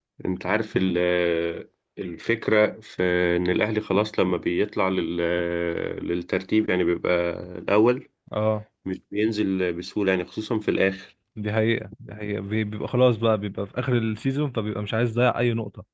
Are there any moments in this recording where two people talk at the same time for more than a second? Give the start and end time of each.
none

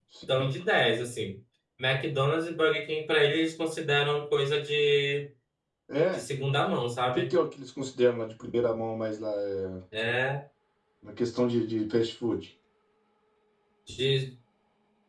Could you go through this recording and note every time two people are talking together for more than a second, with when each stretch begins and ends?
none

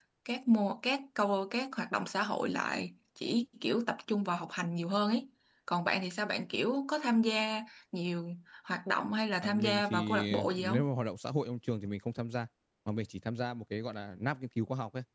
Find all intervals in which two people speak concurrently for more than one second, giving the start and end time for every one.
9.4-10.8

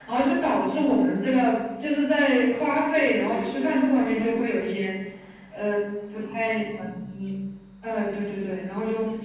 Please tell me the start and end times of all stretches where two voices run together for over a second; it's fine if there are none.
2.5-4.4

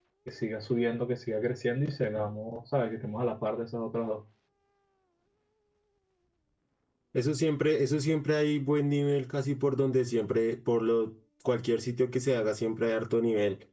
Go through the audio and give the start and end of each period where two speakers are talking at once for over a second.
none

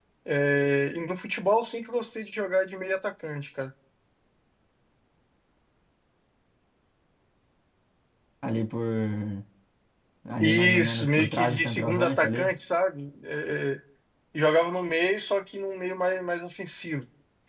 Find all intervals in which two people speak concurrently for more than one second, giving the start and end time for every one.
10.4-12.6

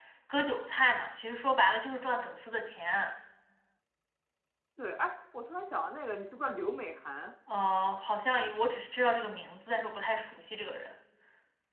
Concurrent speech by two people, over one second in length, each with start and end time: none

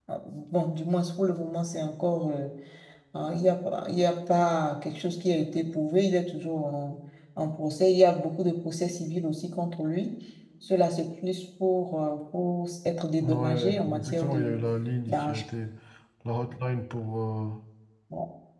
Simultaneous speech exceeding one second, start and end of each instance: 13.2-14.6

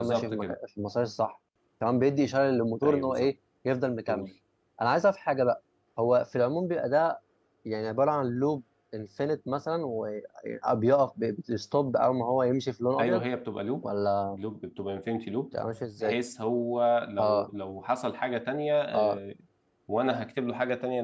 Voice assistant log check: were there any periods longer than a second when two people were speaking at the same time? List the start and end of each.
none

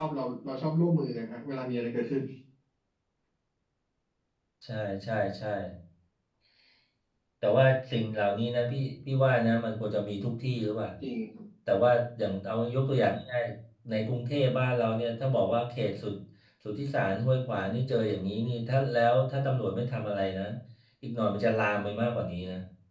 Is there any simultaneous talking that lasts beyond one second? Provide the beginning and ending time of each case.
none

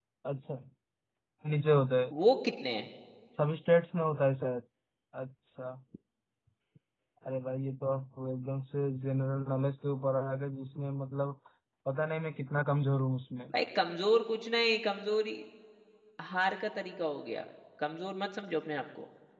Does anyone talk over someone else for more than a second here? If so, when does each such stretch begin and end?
none

